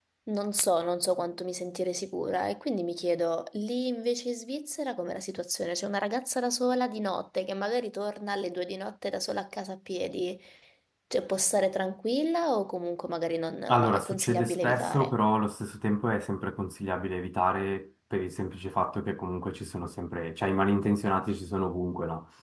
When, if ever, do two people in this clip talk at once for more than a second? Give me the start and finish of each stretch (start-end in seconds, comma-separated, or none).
13.7-15.1